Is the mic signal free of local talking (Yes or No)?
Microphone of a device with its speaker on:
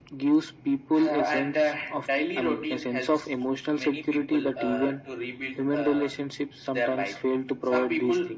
Yes